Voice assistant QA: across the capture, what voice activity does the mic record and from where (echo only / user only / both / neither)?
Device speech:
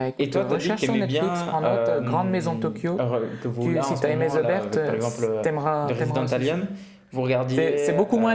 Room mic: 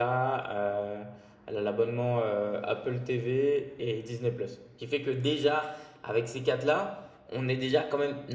user only